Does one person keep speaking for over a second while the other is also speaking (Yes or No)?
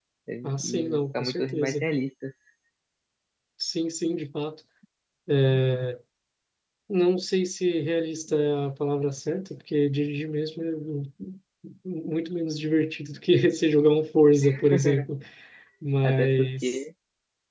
Yes